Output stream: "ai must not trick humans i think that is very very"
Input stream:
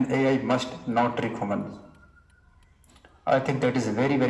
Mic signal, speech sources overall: echo only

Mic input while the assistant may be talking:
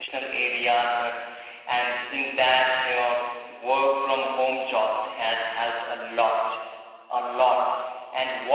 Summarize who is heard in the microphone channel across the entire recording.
user only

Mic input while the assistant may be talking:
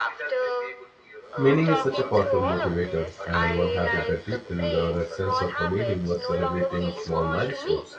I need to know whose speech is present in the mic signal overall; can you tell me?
both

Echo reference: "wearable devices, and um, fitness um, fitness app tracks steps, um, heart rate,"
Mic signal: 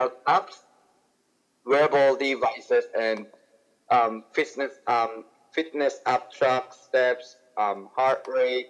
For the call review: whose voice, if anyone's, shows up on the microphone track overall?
echo only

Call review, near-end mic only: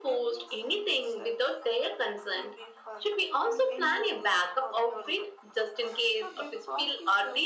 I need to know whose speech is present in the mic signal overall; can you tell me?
both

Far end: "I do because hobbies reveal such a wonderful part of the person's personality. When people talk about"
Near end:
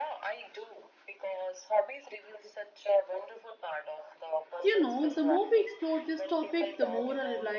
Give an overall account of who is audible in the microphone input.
both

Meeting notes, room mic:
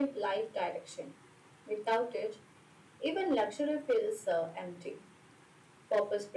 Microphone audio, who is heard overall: echo only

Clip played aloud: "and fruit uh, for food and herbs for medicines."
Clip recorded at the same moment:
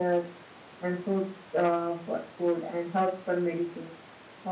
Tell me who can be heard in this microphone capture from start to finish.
echo only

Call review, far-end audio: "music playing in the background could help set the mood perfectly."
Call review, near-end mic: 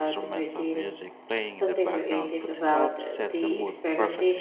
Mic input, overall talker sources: both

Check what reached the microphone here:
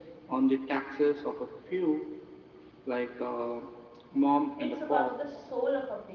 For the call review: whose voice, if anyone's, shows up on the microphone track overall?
both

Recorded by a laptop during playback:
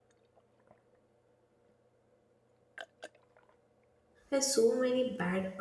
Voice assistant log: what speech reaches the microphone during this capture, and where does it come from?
user only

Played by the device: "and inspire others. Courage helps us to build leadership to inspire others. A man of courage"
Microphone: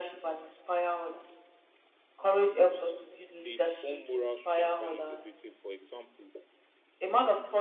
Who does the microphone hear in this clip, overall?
both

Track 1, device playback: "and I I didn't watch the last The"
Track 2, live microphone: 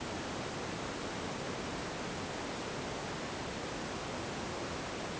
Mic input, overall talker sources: neither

